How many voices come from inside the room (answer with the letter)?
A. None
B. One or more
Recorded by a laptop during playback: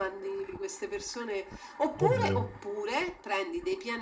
B